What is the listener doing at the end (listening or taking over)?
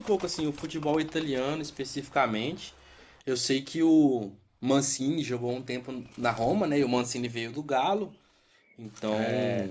listening